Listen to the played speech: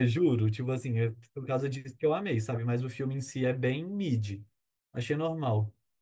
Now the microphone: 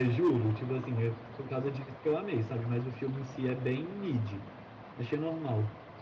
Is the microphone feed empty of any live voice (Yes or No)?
Yes